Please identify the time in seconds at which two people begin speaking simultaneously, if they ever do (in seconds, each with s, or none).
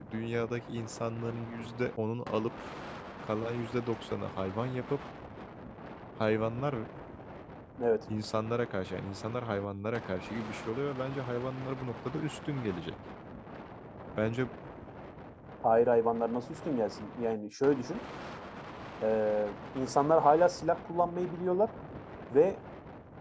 none